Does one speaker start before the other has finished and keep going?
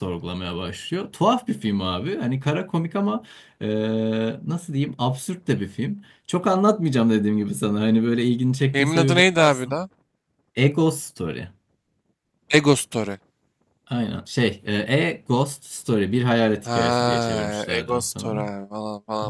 Yes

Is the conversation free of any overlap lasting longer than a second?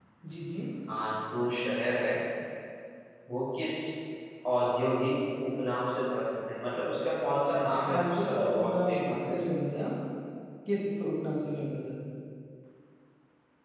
No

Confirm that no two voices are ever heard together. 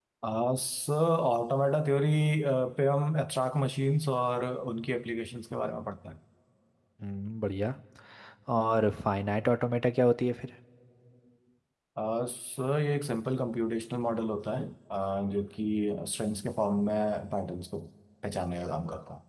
Yes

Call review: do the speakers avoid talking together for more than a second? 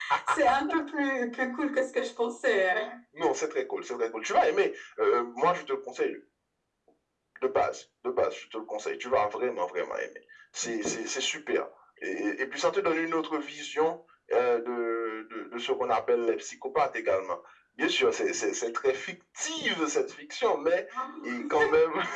Yes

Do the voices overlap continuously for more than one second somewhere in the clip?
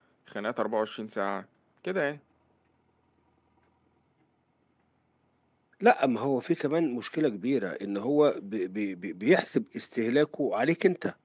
No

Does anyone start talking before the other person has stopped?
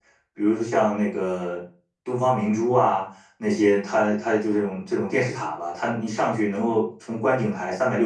No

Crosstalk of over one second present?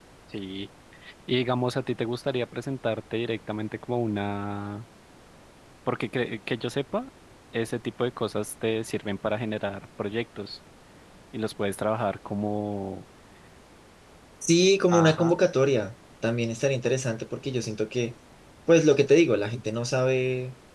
No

